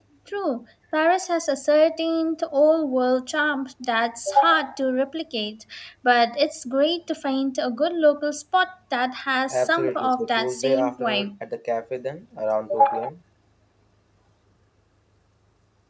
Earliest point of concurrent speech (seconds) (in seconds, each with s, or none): 9.5 s